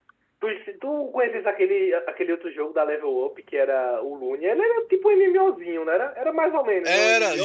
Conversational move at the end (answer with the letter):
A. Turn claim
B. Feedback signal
A